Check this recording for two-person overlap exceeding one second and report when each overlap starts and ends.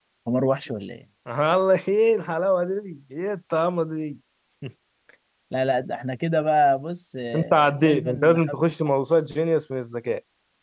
7.3-8.6

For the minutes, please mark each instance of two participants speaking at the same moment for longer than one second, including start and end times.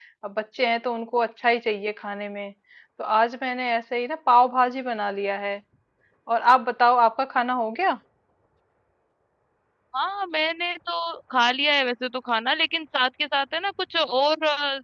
none

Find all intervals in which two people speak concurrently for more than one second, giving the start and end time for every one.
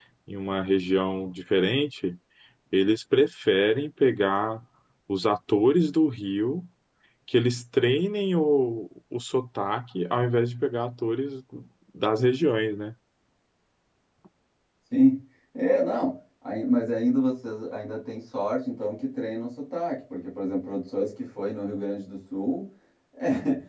none

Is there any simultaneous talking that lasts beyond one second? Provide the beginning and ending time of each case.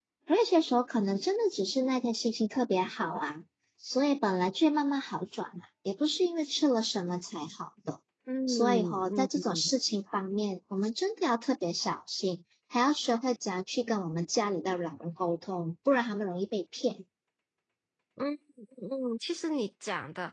8.5-9.7

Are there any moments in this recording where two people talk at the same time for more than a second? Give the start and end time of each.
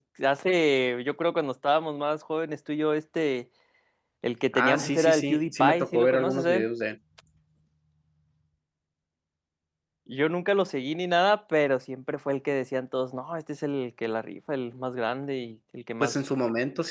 4.5-6.7

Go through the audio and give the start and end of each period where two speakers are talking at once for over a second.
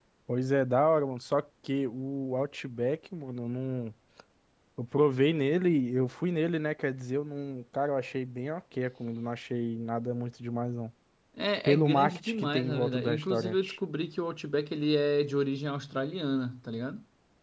11.7-13.7

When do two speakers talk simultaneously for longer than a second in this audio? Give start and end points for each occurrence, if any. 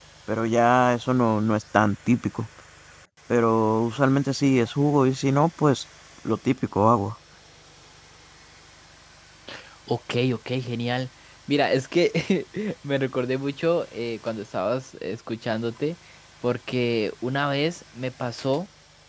none

